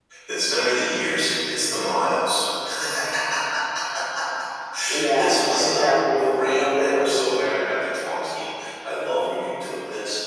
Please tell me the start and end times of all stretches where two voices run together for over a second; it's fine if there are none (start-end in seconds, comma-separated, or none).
5.2-7.3